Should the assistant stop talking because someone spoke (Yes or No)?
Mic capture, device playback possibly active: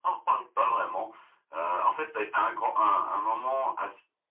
No